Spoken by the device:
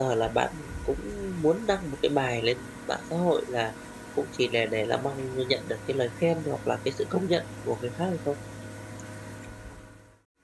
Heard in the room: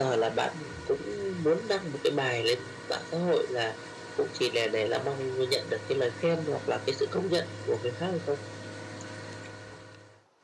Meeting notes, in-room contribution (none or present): none